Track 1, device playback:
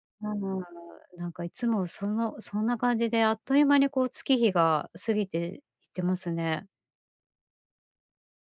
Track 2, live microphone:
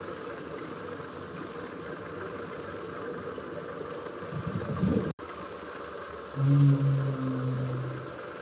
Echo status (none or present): none